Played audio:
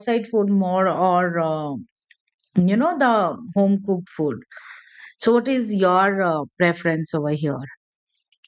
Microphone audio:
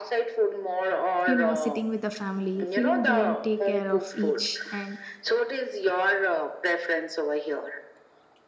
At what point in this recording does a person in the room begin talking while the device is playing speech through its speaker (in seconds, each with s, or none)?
1.2 s